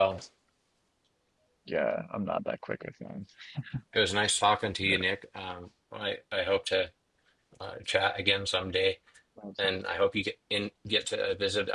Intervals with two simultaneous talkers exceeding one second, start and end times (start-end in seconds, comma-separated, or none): none